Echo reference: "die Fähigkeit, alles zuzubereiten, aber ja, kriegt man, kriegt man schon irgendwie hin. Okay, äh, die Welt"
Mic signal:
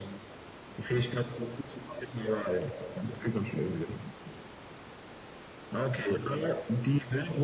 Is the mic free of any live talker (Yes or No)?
Yes